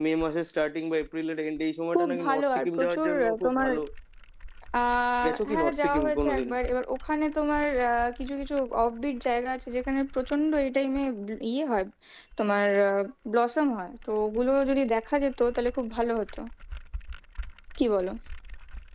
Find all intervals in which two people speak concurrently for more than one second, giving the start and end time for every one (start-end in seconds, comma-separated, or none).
1.9-3.7, 5.2-6.5